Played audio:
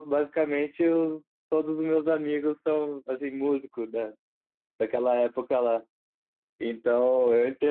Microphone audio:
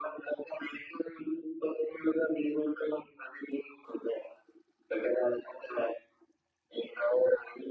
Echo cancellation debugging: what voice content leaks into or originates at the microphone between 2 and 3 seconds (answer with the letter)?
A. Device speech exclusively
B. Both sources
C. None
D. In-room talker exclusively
A